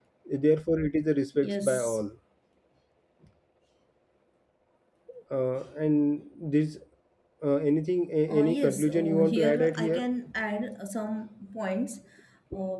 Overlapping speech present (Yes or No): Yes